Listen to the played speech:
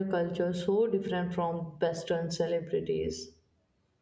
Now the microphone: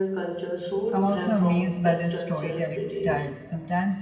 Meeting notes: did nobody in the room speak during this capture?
No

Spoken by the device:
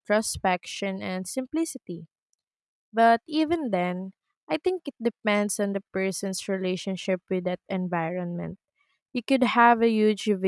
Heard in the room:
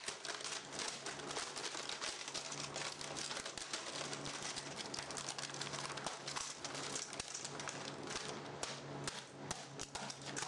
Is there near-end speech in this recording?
No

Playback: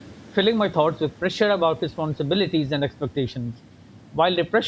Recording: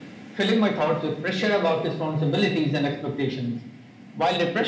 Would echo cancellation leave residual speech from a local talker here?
No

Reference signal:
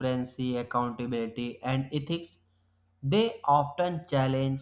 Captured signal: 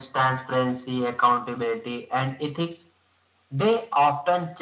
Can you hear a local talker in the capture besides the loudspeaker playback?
No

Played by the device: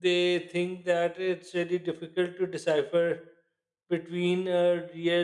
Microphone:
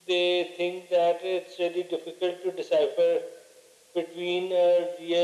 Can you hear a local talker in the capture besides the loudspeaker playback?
No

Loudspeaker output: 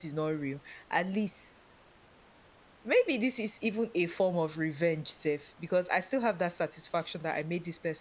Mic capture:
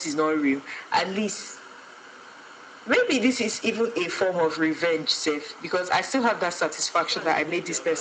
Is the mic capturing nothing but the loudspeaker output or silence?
No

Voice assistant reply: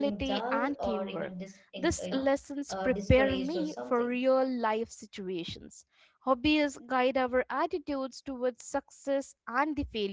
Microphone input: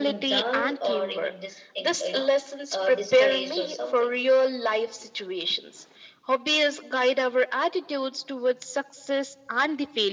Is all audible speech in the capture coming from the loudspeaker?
Yes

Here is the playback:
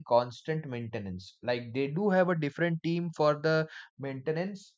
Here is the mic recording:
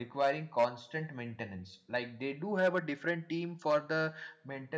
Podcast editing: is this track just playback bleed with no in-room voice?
Yes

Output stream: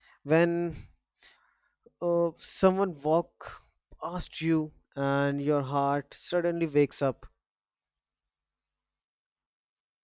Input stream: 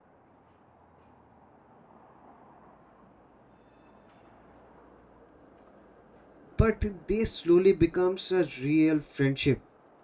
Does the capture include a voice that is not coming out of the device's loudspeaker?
Yes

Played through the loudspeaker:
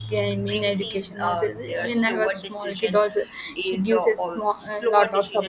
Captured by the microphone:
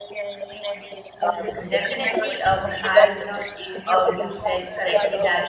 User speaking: Yes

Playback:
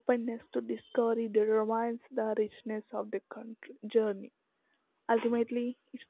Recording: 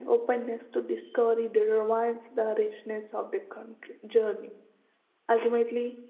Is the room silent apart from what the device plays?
Yes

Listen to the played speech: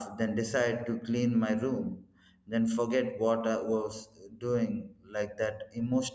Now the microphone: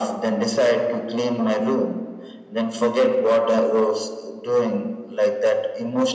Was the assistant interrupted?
No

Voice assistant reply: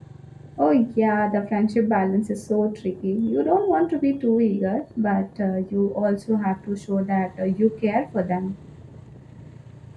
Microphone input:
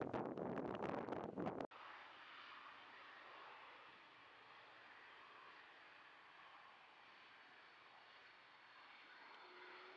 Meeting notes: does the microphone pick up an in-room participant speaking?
No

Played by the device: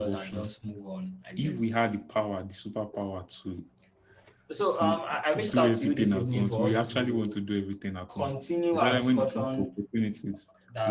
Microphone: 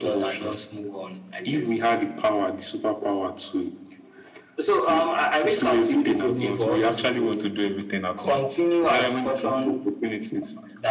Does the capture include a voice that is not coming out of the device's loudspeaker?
No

